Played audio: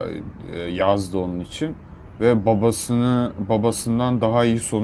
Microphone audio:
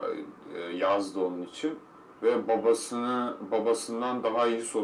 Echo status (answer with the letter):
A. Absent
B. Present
B